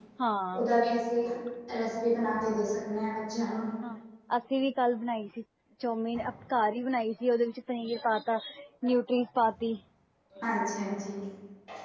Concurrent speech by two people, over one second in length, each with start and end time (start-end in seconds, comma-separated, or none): none